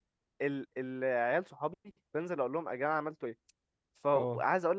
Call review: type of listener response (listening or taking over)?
listening